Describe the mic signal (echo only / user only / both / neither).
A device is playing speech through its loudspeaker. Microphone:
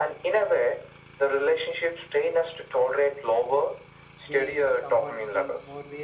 both